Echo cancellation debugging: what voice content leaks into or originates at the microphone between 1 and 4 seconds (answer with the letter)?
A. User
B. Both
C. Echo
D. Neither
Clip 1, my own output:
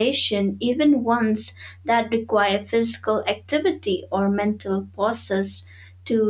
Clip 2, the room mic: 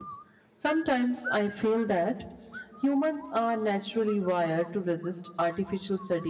A